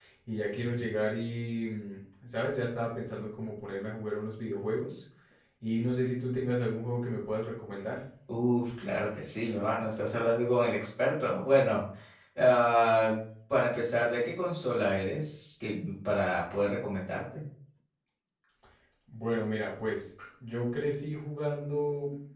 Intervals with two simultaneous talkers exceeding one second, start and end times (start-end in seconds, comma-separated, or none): none